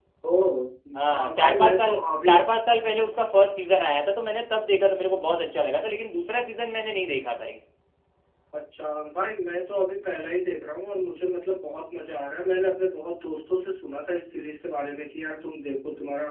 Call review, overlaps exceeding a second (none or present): present